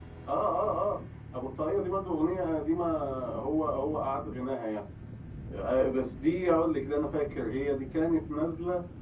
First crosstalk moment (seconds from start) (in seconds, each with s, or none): none